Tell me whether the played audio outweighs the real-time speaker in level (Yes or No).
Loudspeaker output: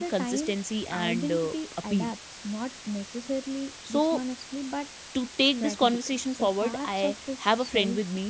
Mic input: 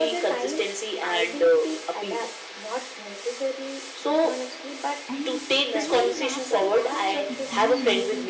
Yes